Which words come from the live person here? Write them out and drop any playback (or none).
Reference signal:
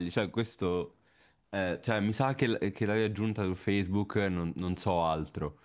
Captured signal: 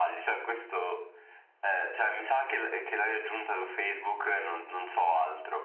none